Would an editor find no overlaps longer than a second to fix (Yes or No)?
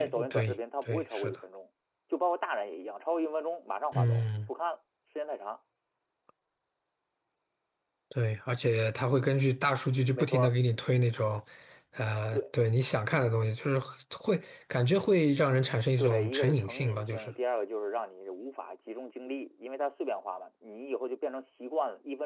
No